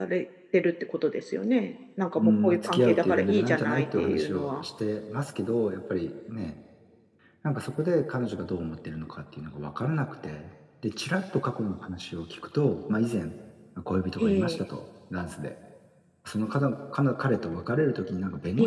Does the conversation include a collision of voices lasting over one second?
Yes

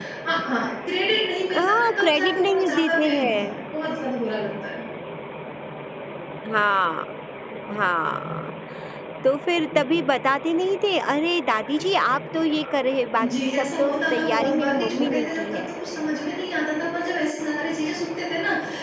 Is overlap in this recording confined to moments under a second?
No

